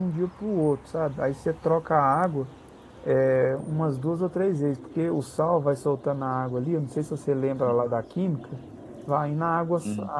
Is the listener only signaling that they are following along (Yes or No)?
Yes